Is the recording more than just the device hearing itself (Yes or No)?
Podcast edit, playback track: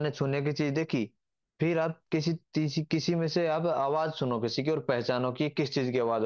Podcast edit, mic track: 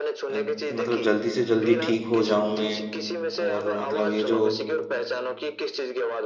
Yes